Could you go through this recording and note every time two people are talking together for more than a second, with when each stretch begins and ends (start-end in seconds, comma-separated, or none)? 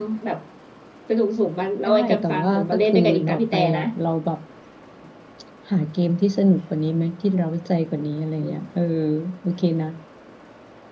1.9-3.8